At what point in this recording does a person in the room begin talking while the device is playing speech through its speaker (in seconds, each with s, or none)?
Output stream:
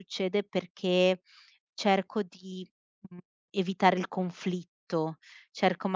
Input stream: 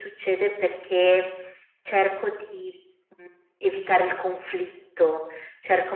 none